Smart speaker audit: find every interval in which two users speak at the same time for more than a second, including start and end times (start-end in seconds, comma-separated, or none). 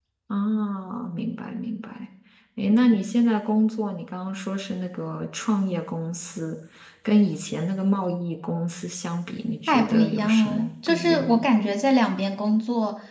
9.7-11.4